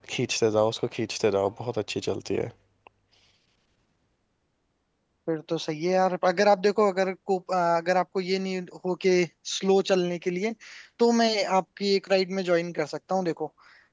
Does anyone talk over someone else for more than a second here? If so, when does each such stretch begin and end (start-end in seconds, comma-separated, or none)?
none